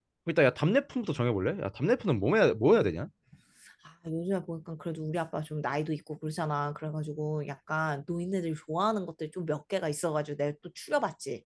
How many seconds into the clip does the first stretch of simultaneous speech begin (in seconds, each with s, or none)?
none